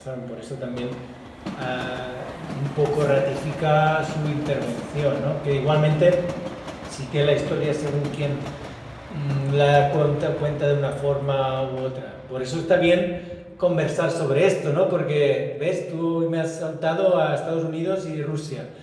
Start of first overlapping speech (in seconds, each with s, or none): none